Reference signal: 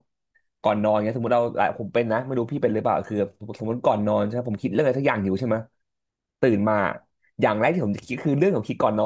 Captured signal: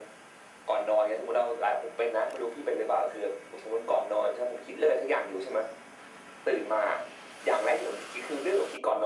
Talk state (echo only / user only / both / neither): echo only